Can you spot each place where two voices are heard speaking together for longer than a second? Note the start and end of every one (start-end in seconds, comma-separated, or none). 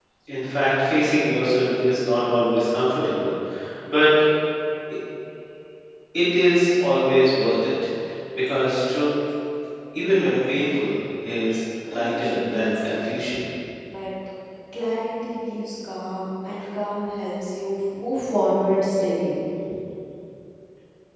11.9-13.1